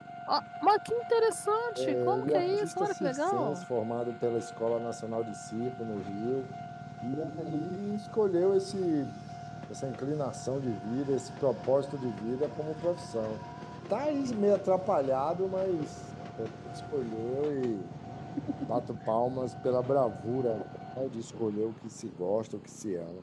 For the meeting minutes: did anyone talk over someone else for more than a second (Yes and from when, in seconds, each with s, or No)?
Yes, from 1.8 s